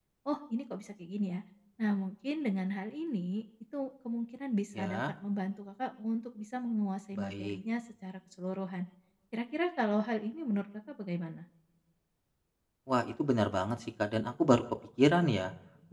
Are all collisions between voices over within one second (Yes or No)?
Yes